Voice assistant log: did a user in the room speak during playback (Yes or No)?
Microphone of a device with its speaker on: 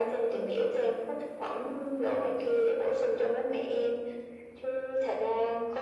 No